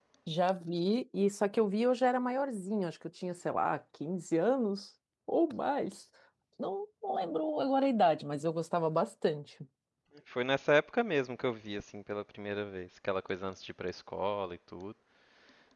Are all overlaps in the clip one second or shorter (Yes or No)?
Yes